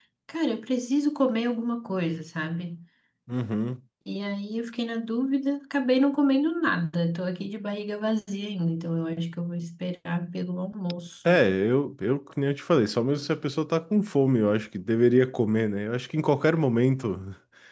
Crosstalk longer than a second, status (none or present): none